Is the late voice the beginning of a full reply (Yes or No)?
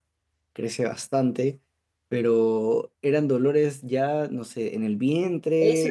Yes